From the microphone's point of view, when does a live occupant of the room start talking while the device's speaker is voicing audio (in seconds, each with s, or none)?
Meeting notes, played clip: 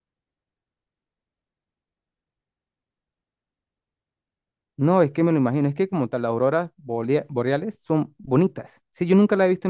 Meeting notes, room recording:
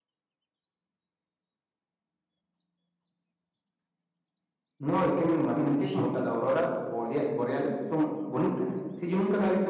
5.8 s